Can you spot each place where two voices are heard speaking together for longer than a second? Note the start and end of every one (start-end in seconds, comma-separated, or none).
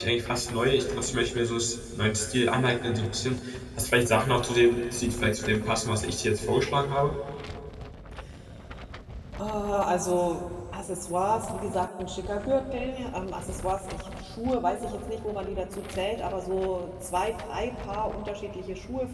none